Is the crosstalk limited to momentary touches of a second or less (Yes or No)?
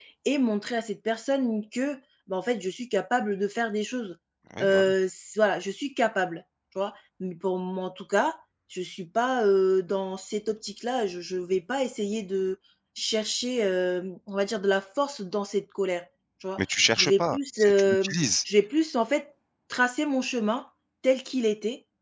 No